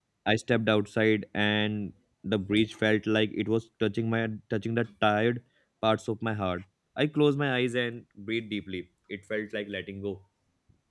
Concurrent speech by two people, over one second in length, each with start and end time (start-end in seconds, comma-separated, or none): none